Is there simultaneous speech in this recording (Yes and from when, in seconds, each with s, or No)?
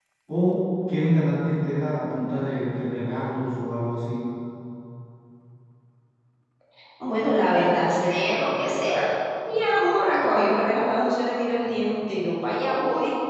No